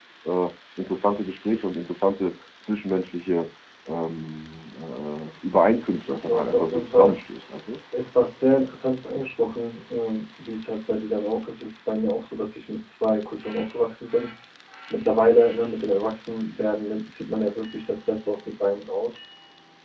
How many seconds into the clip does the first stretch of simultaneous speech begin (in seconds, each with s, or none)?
5.7 s